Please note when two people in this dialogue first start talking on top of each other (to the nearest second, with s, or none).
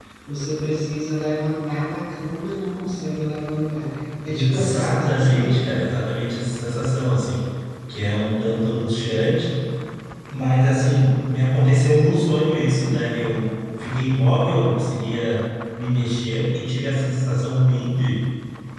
4 s